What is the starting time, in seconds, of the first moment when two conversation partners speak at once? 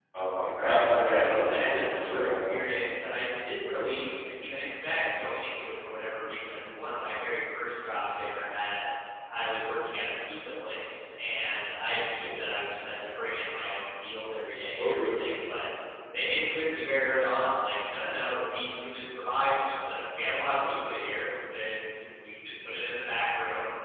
0.5 s

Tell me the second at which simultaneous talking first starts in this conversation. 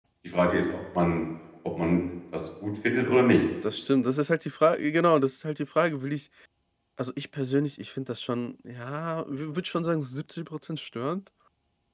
none

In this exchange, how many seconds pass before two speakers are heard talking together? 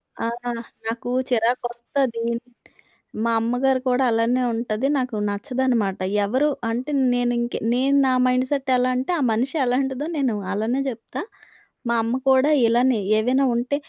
none

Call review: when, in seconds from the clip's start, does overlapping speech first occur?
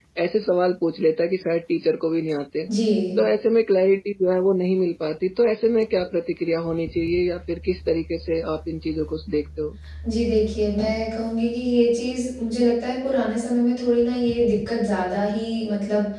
none

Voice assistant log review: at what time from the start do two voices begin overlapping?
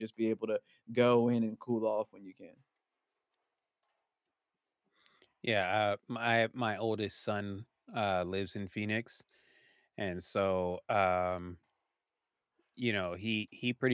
none

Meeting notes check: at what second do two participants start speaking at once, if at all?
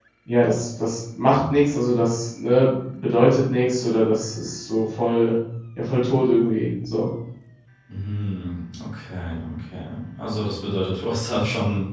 none

